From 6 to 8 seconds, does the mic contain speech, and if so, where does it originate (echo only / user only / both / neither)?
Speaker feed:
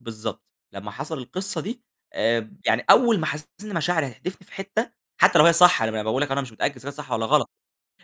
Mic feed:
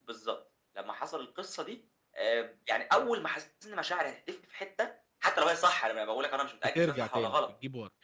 both